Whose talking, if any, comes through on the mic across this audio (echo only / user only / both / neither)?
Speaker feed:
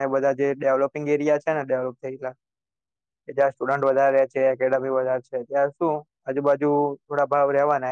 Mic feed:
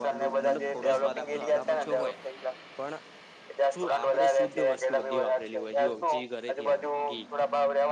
both